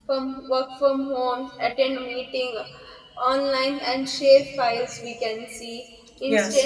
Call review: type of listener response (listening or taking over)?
listening